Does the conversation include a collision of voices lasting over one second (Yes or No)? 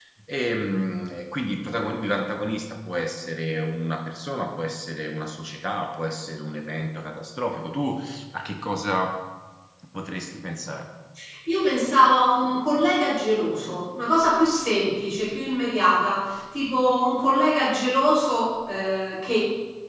No